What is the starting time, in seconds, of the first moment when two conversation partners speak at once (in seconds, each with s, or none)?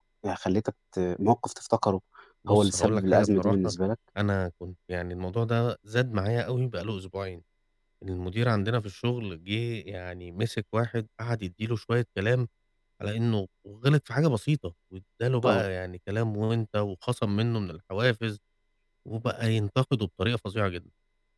2.5 s